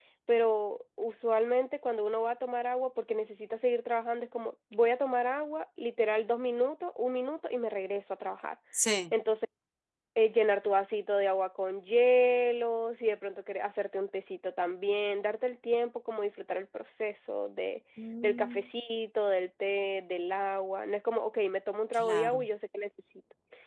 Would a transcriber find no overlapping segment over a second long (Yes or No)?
Yes